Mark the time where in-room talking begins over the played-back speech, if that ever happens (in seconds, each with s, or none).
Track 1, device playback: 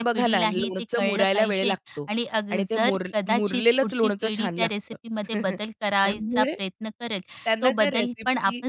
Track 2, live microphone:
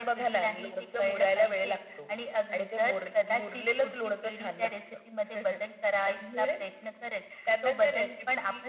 none